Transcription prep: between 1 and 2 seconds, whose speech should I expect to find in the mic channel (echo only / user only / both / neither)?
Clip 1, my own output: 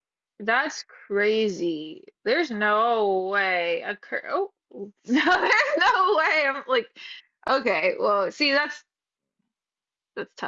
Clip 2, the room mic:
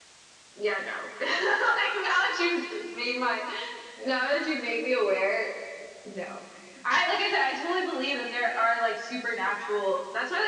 user only